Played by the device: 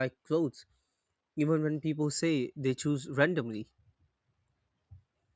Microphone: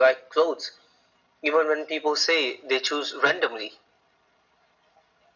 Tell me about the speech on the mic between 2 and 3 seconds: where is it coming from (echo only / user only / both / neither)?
echo only